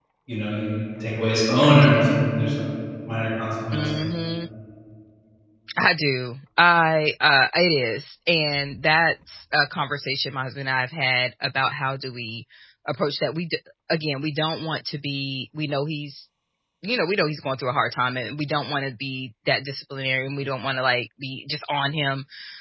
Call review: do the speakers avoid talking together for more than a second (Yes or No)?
Yes